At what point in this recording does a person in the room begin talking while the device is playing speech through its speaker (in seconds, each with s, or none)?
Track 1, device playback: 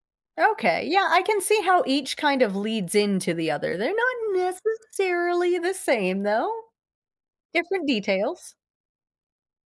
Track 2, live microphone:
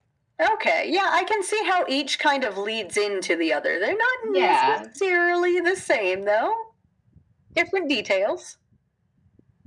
4.2 s